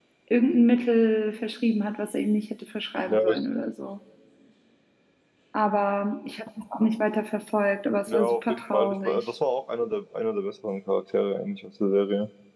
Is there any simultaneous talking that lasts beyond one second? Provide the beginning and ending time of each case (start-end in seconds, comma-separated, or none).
8.1-9.3